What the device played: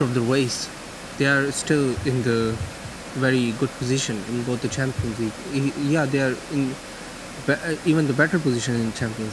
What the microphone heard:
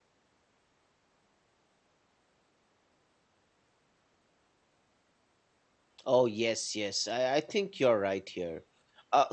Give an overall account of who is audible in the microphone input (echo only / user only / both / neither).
user only